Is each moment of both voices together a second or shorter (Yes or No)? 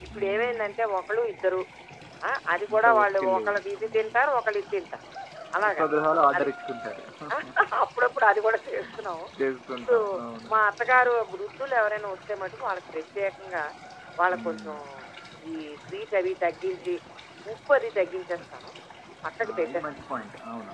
No